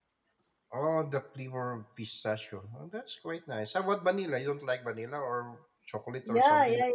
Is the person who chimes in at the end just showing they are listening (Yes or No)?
No